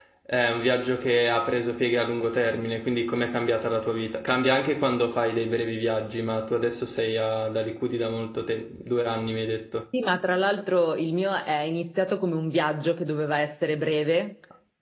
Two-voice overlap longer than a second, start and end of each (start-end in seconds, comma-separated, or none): none